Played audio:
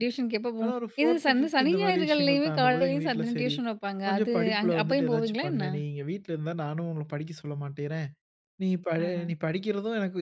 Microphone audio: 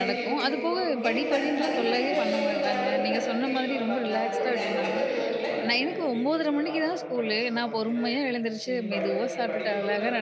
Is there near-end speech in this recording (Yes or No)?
Yes